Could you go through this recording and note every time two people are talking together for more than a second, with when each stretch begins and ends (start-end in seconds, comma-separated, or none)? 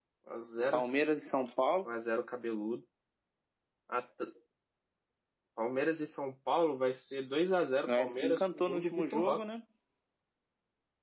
7.9-9.4